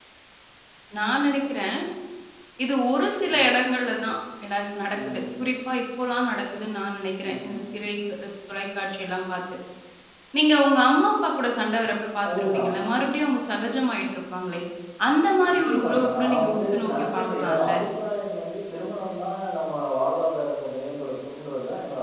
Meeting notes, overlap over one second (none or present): present